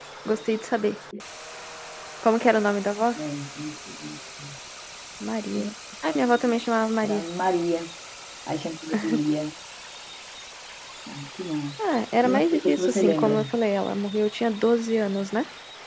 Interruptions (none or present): present